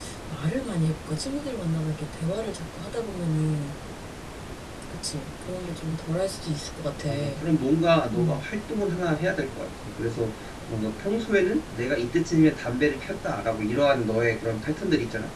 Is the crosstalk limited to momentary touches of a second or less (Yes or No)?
Yes